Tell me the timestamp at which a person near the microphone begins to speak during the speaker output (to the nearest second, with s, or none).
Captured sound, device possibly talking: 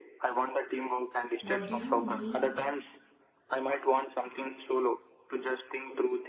1 s